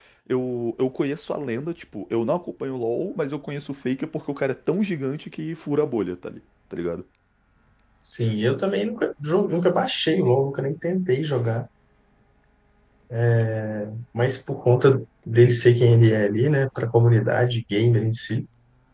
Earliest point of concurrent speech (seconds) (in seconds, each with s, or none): none